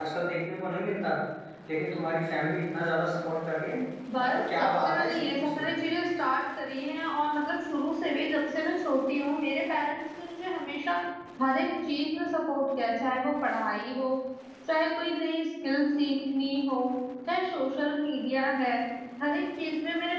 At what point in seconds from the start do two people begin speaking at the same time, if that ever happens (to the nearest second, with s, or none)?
4 s